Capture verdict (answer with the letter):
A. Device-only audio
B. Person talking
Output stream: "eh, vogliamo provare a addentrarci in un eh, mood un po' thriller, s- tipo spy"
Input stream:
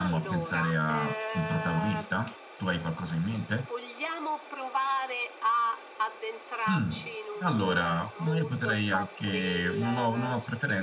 B